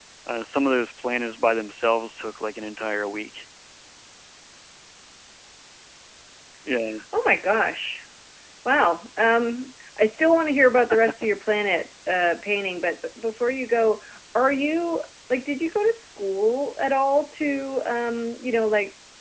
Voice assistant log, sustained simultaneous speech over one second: none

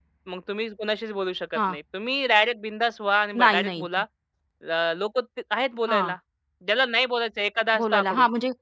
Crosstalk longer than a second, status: none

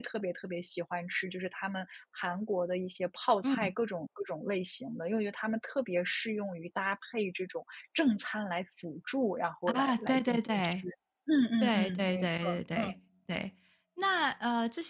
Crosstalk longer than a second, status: present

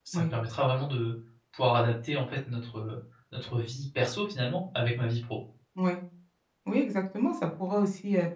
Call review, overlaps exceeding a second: none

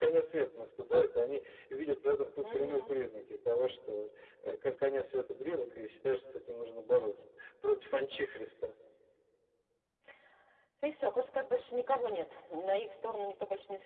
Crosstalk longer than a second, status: none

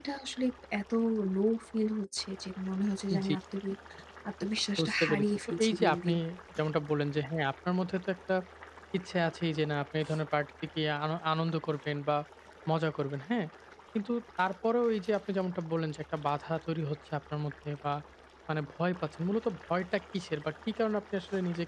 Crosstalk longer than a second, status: present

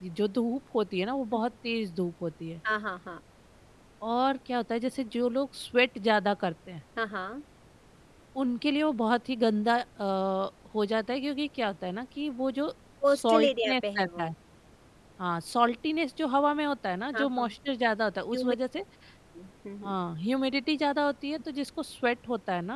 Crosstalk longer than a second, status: present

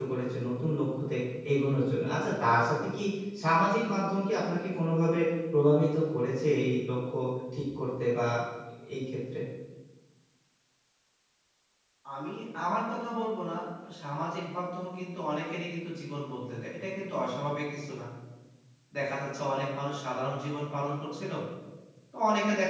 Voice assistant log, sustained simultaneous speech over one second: none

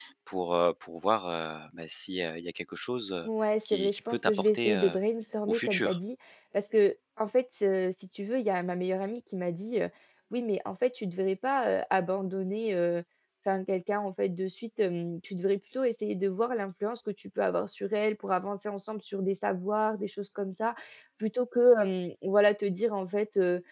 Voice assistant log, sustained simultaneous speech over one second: present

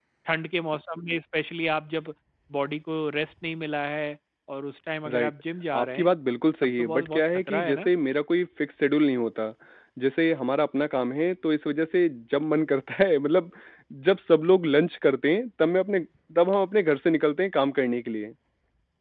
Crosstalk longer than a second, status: present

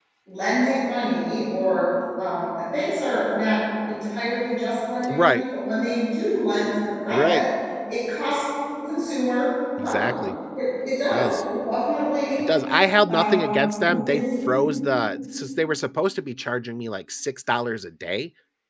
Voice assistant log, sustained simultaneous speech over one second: present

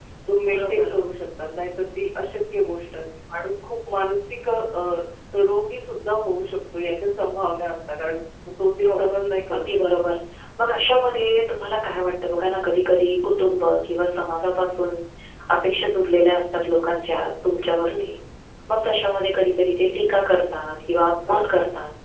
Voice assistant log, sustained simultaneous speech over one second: none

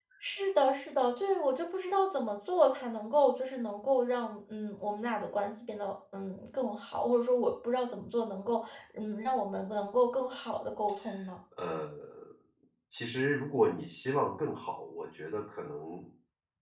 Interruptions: none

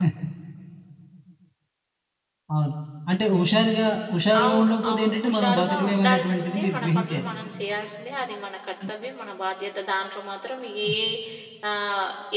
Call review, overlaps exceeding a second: present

